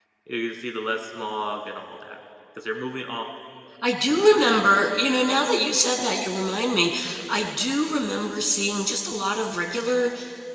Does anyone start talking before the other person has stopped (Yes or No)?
No